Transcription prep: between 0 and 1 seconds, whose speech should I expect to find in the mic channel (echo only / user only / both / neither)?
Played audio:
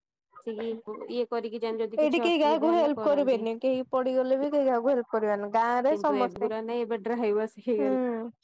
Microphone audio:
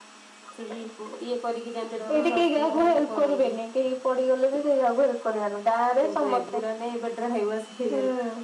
echo only